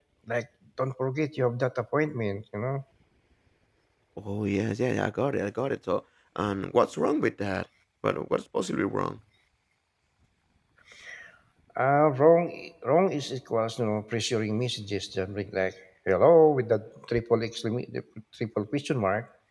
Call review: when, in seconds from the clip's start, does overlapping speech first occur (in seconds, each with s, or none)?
none